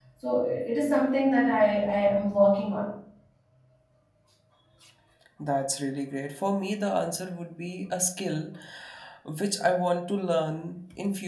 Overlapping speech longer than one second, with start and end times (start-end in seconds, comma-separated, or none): none